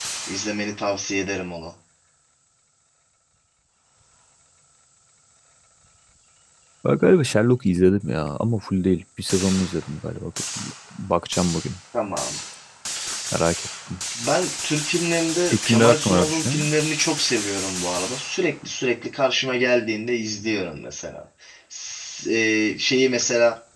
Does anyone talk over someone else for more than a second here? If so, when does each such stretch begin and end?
15.5-16.7

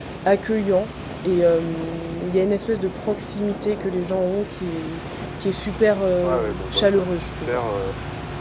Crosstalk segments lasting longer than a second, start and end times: 6.2-7.6

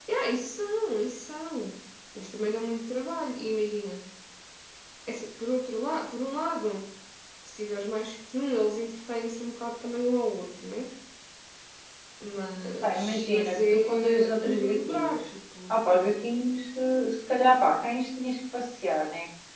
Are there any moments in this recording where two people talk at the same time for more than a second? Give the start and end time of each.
12.8-15.2

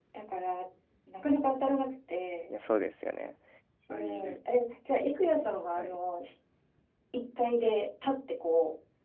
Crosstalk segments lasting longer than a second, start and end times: none

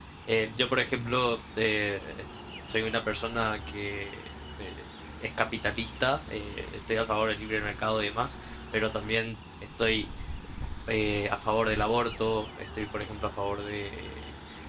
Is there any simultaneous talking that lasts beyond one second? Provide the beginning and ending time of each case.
none

